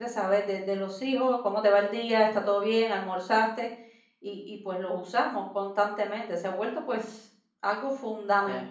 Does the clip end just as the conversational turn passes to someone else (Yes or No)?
No